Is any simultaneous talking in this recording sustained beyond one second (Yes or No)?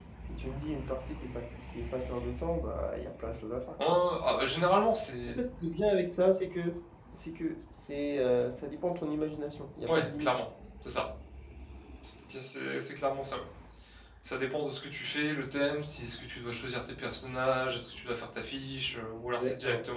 No